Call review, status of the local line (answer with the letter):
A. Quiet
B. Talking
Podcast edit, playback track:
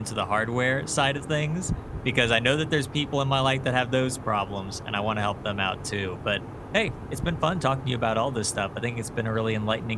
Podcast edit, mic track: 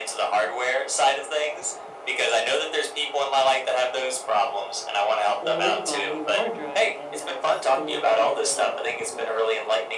B